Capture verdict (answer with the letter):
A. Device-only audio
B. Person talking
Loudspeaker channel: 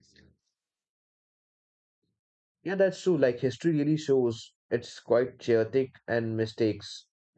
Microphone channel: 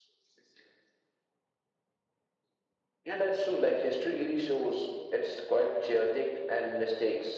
A